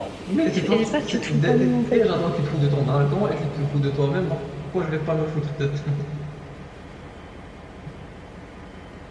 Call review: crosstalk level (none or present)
present